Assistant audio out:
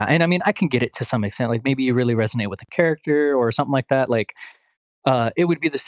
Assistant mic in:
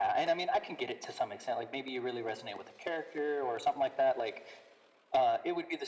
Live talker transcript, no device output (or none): none